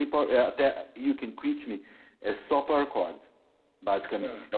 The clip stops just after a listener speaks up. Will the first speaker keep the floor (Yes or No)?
Yes